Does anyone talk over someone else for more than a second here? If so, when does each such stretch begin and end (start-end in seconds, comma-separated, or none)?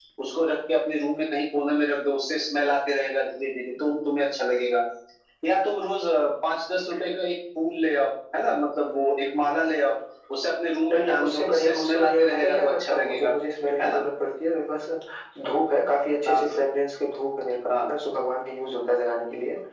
10.9-13.3